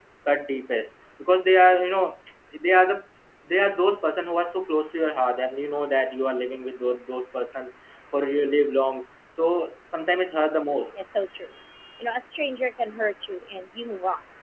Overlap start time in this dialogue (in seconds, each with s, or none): none